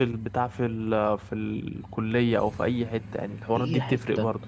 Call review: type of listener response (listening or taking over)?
taking over